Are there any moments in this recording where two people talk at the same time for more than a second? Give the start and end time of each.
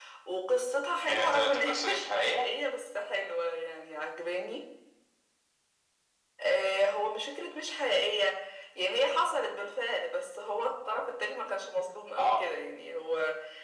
1.1-2.5

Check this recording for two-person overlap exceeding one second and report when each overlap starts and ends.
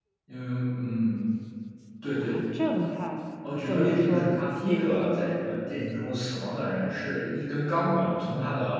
3.7-5.5

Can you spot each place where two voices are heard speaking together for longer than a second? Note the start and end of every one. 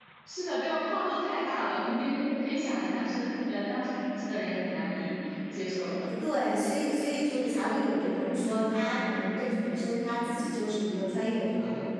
none

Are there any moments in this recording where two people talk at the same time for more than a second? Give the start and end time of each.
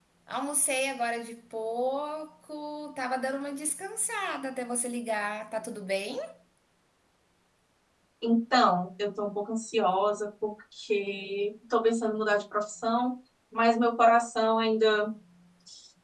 none

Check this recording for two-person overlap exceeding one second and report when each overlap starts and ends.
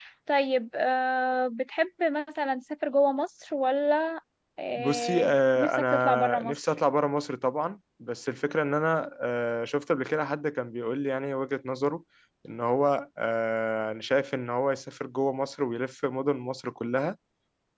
4.8-6.6

